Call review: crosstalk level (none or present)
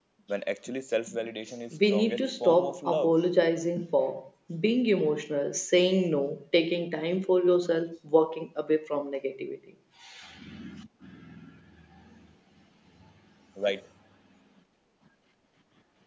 present